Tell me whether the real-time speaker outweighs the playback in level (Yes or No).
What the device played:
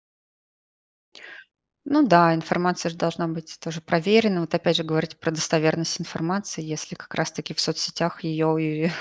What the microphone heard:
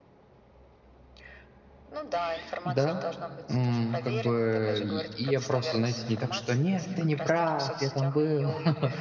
Yes